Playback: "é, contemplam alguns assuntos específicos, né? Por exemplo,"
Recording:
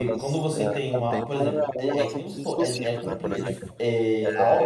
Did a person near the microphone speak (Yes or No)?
Yes